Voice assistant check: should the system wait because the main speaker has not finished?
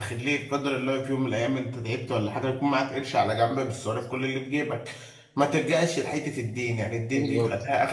Yes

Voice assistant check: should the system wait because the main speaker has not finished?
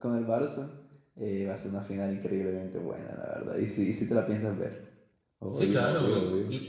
No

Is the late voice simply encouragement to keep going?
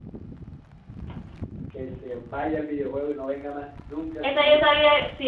No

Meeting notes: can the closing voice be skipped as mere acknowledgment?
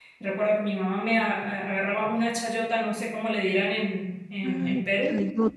No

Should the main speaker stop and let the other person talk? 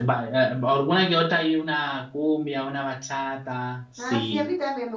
Yes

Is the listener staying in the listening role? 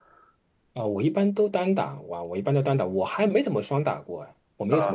No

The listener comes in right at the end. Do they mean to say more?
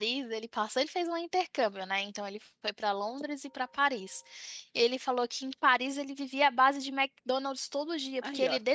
No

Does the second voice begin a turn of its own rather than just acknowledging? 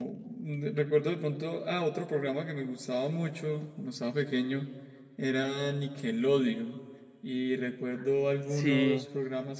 No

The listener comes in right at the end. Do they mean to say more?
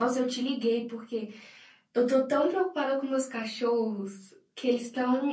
No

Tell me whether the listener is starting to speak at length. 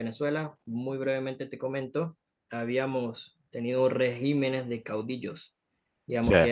No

